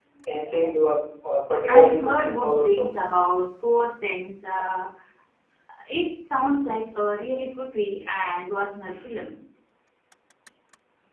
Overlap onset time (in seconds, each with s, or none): 1.6 s